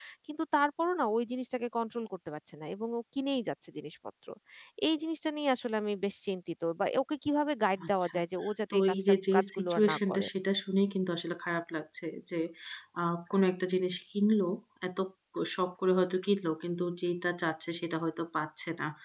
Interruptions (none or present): present